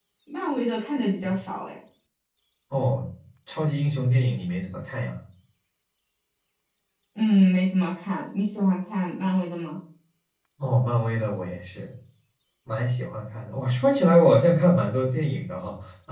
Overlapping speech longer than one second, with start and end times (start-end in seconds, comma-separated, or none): none